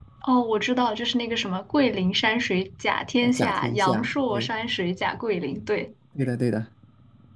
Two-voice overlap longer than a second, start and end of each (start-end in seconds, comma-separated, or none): 3.2-4.5